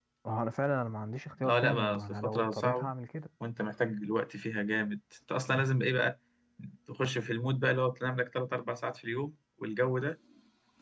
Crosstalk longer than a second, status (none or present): present